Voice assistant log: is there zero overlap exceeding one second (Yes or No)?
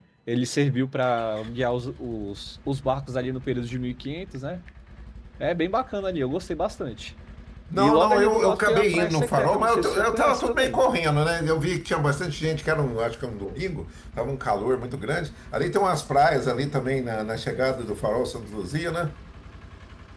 No